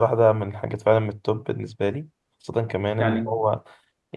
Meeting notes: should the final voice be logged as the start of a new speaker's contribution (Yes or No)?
No